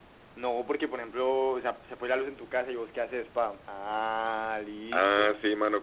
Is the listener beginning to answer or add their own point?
Yes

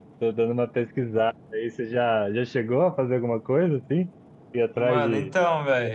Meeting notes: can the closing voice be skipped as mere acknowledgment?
No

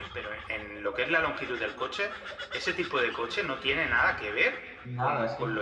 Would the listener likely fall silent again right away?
No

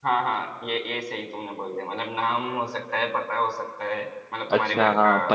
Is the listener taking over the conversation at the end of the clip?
Yes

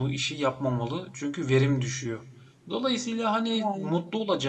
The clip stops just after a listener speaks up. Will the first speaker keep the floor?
Yes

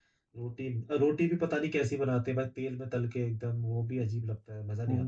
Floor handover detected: Yes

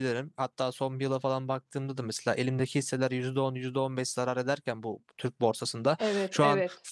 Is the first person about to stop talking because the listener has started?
No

